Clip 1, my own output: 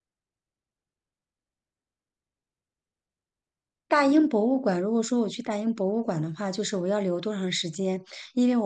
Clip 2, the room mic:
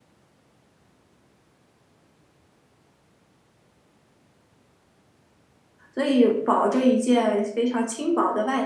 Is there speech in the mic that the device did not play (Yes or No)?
Yes